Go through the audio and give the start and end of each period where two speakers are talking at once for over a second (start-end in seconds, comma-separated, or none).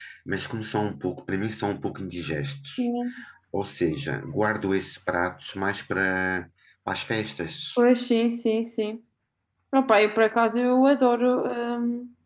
none